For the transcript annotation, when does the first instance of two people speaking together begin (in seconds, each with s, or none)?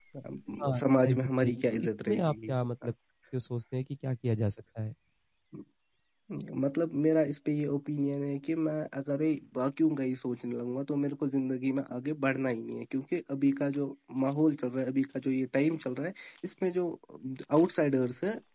0.8 s